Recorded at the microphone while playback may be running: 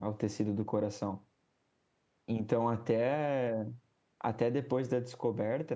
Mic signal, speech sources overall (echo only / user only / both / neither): user only